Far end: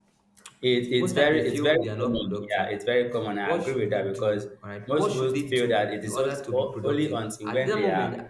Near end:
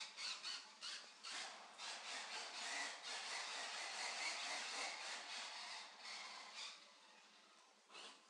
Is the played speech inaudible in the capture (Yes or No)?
Yes